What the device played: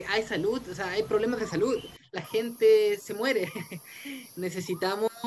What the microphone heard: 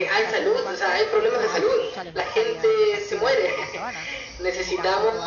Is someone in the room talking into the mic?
Yes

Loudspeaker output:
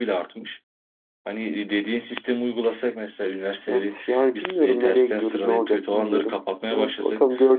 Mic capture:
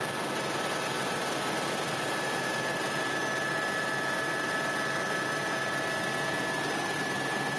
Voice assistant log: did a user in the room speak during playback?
No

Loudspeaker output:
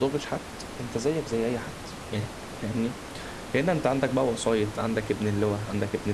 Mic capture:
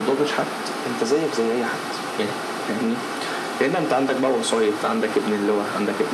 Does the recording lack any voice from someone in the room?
Yes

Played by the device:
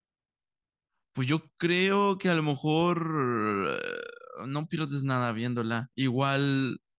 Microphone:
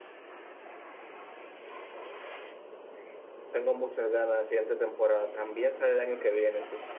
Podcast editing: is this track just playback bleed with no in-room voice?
No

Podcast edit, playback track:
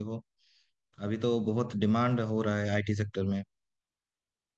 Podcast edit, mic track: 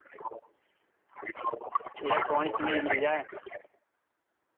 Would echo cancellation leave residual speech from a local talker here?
Yes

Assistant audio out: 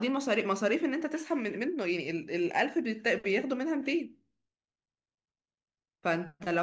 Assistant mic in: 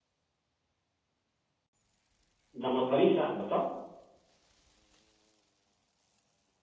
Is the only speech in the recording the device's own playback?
No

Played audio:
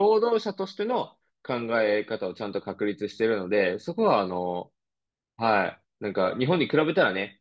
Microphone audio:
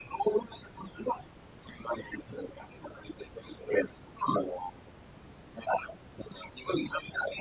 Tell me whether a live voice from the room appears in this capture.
No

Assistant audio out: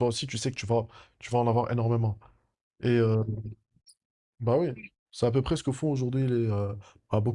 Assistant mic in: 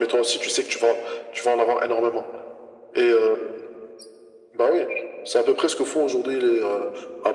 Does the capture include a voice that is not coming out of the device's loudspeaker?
No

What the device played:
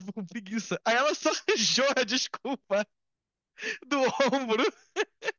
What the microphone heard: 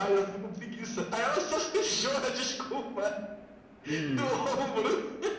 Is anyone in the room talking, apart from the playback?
Yes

